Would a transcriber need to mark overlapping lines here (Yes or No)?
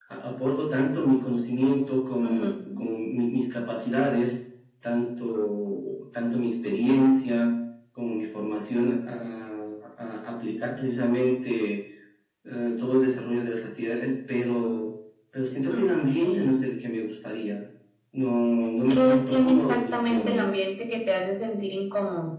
Yes